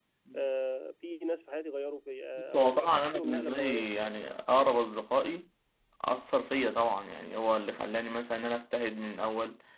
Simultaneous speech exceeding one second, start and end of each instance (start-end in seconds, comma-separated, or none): 2.4-4.1